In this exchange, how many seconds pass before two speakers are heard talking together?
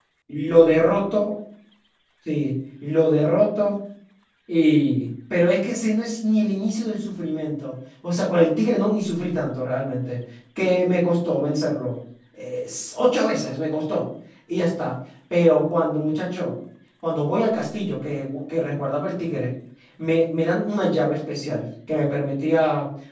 none

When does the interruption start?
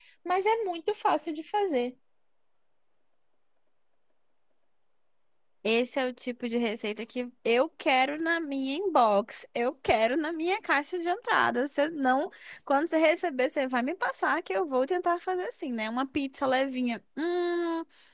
none

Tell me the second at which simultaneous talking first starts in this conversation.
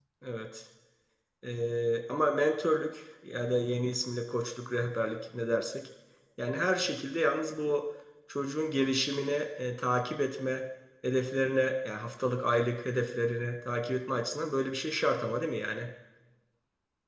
none

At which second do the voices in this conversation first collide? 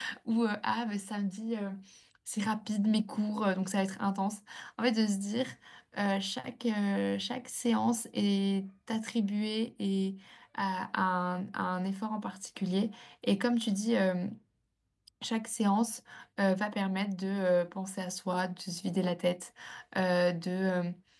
none

